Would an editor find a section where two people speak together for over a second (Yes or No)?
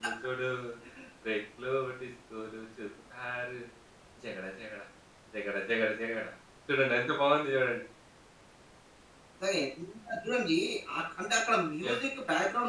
No